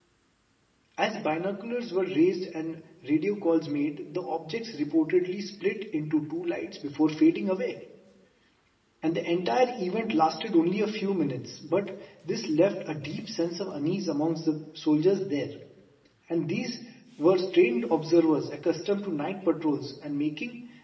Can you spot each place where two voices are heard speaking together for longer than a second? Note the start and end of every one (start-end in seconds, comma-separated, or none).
none